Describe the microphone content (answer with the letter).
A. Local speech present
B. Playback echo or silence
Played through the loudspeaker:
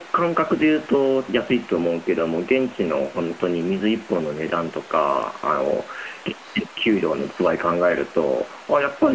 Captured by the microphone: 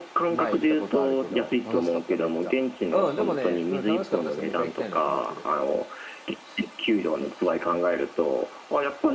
A